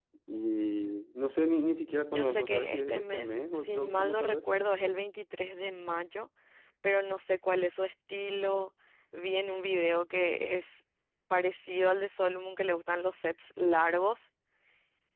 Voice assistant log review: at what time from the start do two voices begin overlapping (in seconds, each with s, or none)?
2.1 s